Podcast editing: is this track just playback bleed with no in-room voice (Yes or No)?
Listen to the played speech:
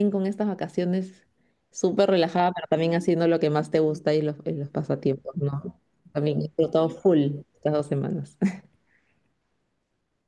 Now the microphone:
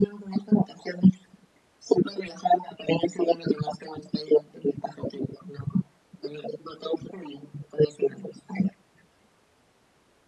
Yes